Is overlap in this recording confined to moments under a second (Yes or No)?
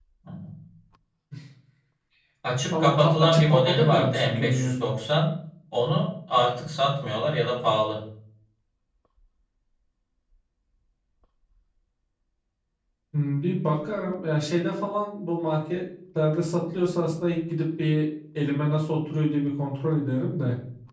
No